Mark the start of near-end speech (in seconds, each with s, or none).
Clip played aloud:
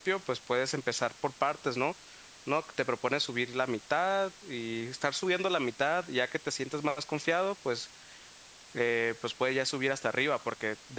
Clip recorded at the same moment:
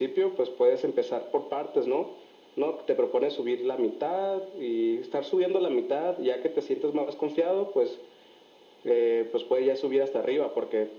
none